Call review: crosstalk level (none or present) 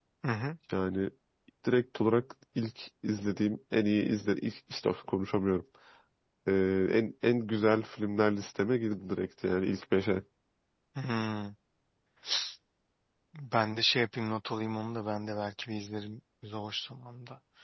none